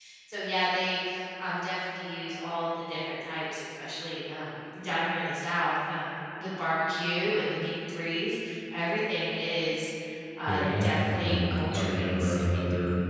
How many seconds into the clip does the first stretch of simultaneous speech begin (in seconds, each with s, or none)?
10.5 s